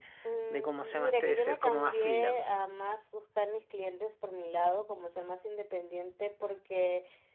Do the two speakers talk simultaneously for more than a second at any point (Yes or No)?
Yes